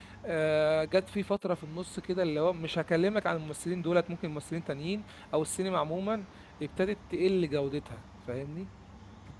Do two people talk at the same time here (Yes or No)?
No